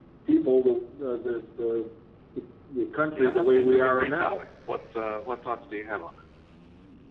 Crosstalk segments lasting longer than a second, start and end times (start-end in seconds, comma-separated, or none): 3.1-4.4